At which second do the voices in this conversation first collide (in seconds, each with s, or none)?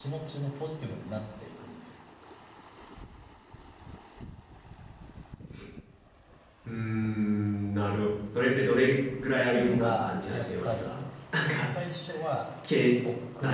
9.5 s